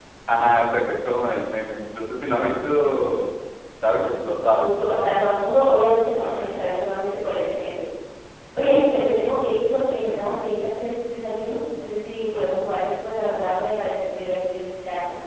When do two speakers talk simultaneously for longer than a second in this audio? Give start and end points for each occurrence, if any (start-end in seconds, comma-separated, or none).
none